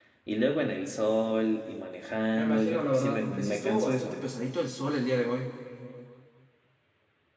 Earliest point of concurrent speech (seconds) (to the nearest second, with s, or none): 2 s